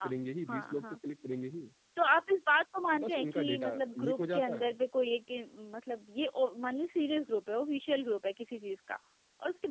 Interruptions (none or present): present